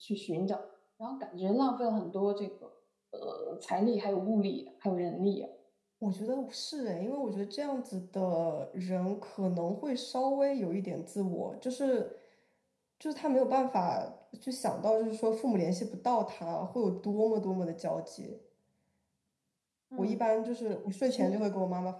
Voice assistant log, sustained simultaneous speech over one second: none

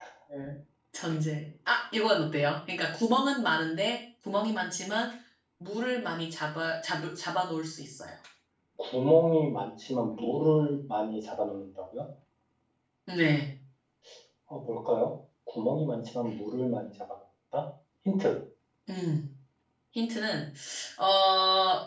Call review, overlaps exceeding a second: none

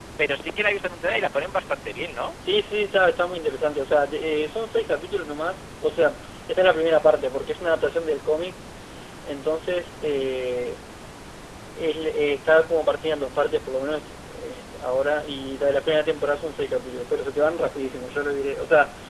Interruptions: none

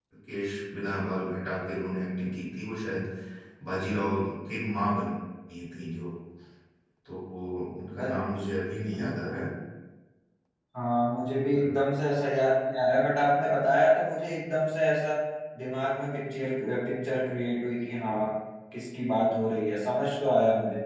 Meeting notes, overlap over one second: none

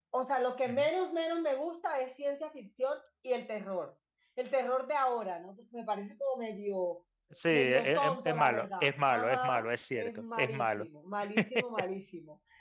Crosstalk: present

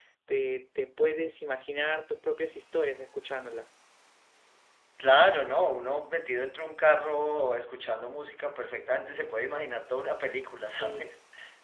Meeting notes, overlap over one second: none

